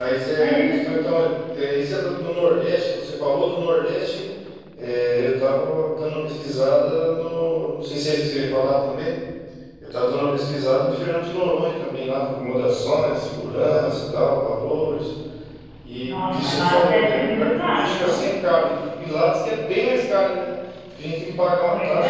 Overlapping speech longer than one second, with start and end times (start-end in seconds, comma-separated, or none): 16.0-18.2